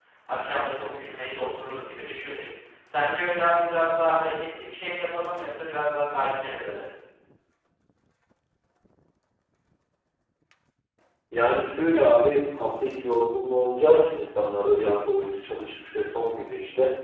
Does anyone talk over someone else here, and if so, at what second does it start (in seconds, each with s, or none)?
none